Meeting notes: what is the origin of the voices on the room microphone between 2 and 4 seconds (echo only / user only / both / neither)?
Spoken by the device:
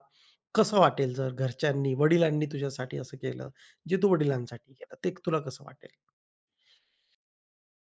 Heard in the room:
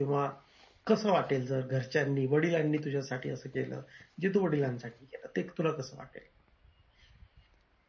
echo only